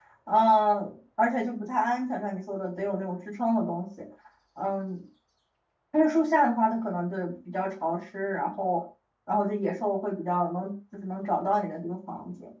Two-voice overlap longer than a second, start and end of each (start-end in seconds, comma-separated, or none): none